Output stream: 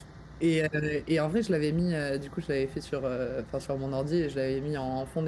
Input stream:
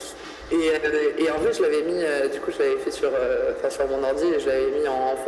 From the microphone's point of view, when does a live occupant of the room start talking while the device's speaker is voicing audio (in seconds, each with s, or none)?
none